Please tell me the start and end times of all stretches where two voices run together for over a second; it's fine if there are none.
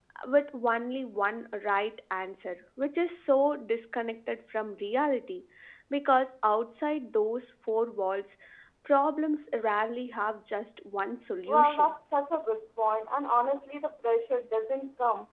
none

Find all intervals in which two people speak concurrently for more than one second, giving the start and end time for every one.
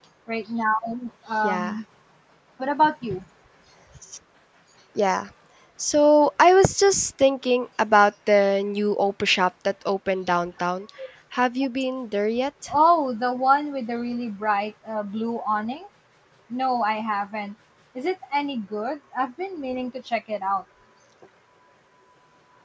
none

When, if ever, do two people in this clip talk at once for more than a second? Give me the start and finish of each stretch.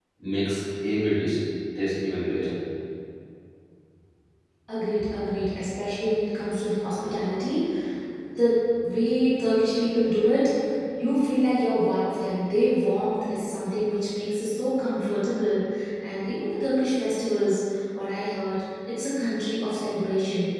none

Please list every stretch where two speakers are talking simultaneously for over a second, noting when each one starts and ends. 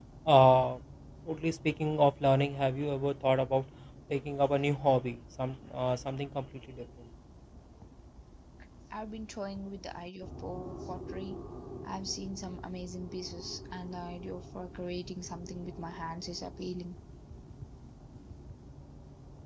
none

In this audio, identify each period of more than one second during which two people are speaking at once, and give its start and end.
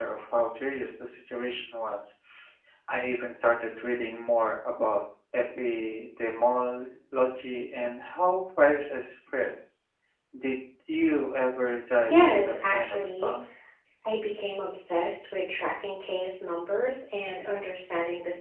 12.1-13.3

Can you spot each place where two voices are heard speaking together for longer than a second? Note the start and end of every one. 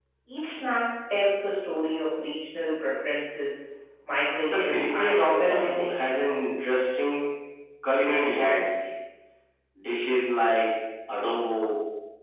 4.5-6.1

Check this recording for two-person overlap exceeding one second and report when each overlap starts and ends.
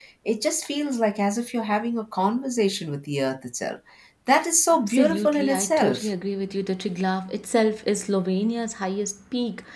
4.9-6.1

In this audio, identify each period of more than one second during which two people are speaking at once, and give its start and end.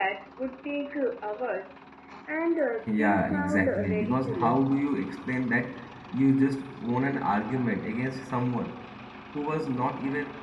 2.9-4.8

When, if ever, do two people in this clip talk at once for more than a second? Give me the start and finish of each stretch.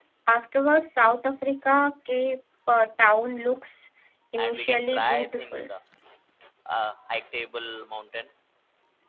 4.4-5.6

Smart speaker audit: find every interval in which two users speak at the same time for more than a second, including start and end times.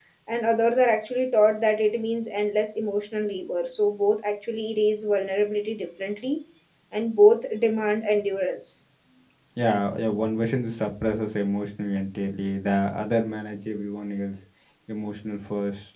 none

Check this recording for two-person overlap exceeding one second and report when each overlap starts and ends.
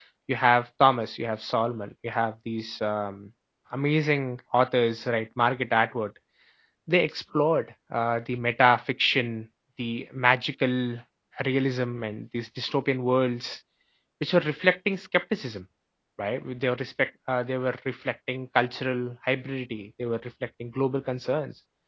none

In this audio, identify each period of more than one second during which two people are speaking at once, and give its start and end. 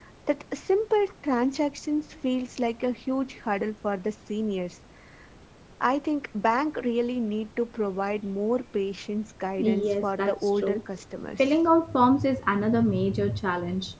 9.6-10.8

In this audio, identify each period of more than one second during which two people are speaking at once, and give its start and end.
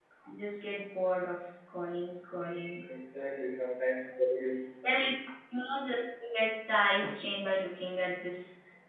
none

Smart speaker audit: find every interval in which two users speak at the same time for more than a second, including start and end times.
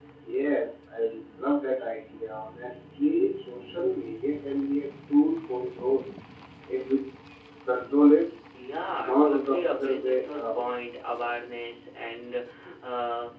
8.9-10.7

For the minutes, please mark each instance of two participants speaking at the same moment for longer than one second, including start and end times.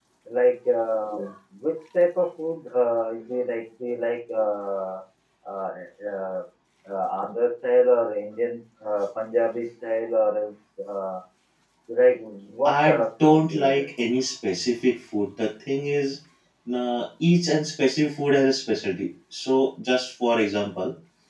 12.7-13.9

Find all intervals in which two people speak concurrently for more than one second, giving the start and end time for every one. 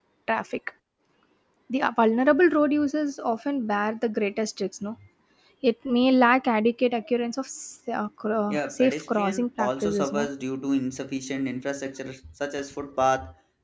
8.5-10.3

